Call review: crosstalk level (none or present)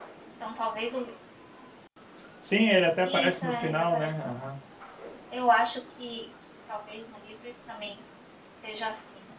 present